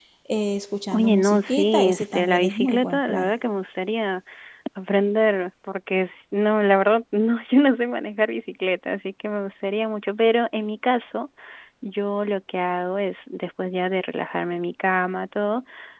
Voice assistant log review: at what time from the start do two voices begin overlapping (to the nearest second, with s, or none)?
1 s